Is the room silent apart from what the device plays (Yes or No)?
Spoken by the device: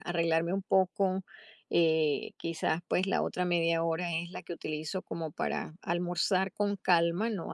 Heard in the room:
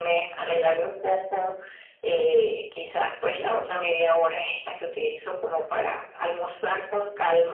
Yes